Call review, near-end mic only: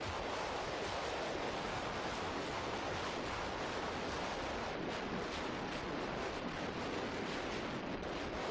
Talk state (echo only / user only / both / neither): neither